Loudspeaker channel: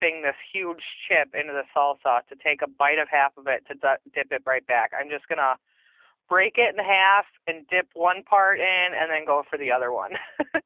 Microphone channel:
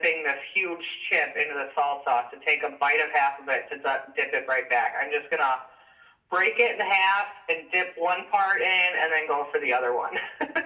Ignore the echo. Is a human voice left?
No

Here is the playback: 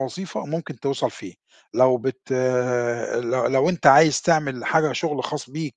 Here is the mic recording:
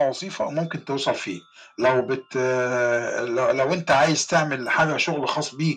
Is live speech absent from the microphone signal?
Yes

